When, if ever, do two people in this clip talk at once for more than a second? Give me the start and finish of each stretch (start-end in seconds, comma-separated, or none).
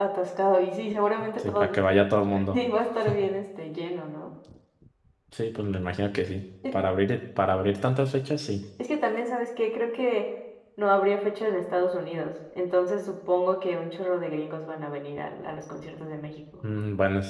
none